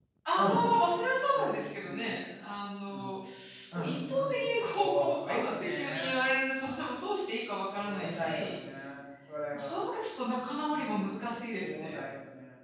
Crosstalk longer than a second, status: present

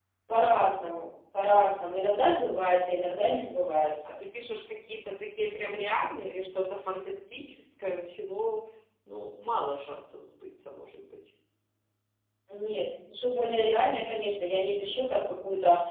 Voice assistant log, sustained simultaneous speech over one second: none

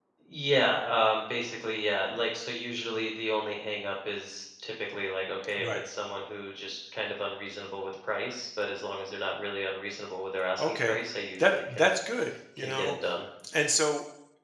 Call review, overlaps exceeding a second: none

